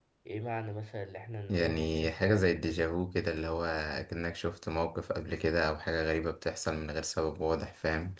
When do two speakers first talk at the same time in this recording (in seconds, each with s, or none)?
1.5 s